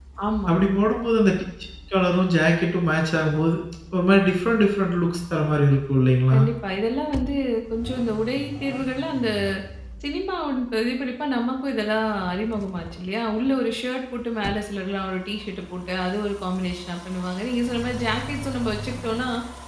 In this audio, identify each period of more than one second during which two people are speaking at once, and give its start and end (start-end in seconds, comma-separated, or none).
none